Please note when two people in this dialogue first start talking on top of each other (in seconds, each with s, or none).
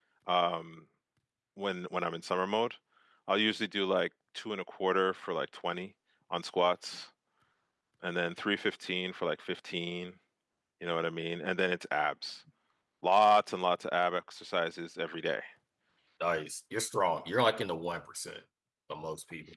none